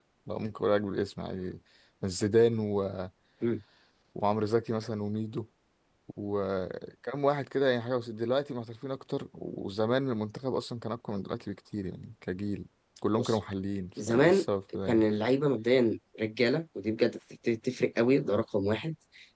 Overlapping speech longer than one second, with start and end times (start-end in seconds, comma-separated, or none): none